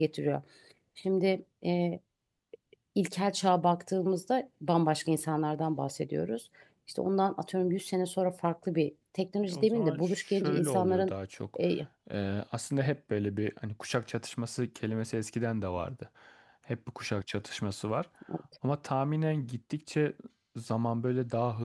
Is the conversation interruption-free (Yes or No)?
No